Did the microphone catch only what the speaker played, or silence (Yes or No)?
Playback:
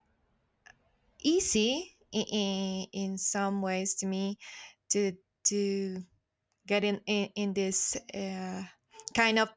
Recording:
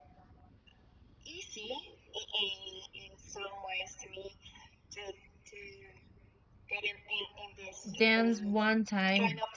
No